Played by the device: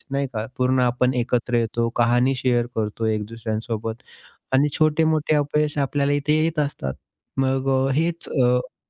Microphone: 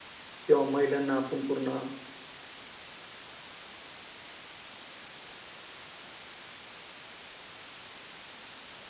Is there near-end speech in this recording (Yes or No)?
Yes